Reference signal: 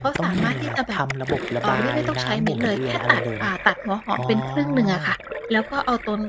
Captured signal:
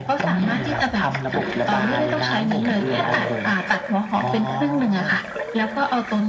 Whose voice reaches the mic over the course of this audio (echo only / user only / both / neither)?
both